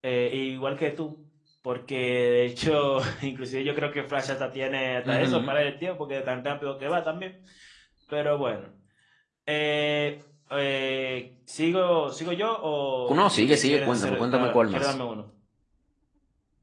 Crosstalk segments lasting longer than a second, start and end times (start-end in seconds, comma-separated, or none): 13.1-14.9